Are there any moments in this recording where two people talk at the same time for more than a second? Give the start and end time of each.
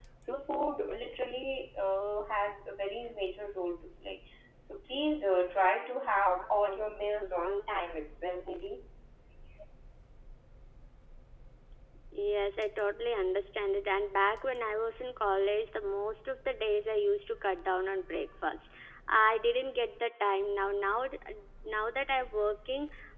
none

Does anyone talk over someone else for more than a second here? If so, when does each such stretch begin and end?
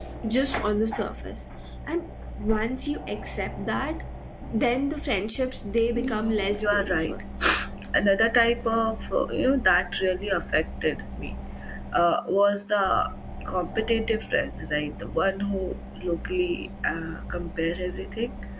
6.0-7.2

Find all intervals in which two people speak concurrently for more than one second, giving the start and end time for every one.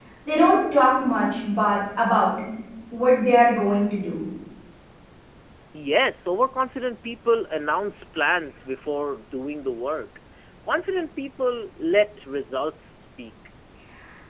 none

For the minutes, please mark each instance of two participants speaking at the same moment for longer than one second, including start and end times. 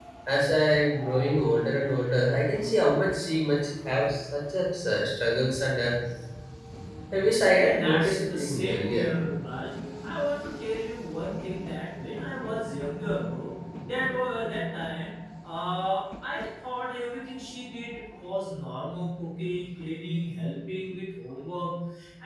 7.6-9.1

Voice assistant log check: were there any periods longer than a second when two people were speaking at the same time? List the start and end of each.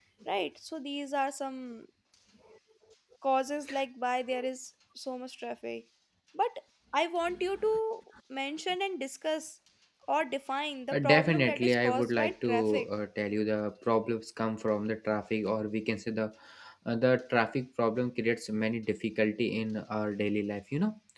10.9-12.9

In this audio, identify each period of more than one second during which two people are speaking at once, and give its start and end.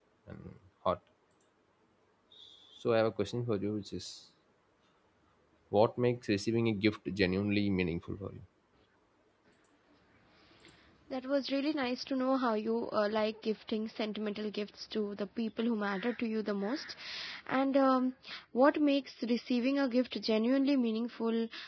none

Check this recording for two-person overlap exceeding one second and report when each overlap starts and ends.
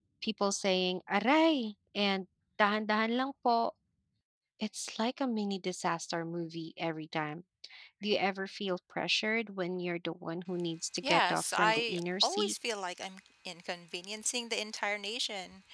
11.0-12.5

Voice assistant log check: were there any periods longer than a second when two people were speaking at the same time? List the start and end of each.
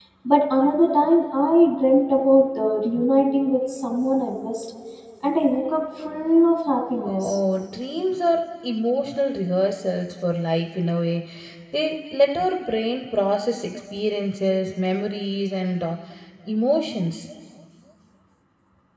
none

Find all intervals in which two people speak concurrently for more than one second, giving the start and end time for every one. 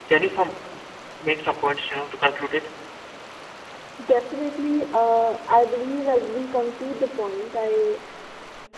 none

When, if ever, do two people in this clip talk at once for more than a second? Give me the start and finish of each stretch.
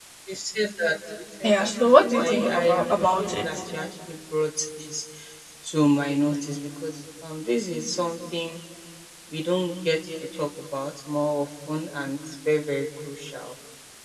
1.4-3.4

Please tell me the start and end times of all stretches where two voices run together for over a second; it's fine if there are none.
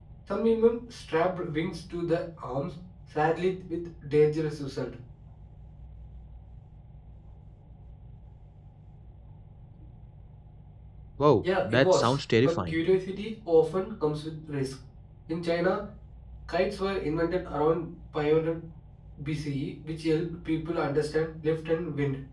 11.4-12.8

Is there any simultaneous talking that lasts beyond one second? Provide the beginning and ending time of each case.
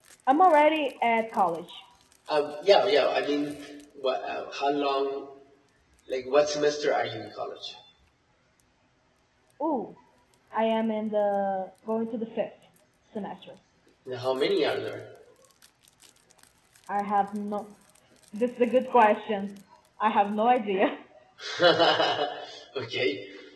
none

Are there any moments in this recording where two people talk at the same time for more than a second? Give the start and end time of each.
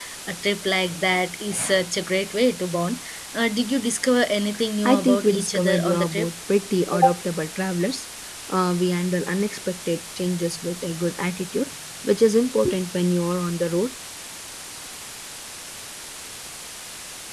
4.8-6.3

